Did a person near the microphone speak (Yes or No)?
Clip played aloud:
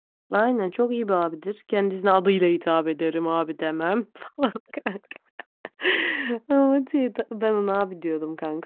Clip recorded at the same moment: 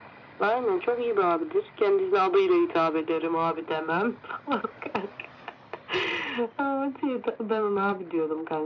No